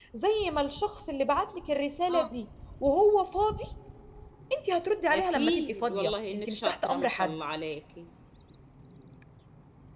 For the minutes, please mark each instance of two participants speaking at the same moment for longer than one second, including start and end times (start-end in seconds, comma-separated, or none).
5.1-7.4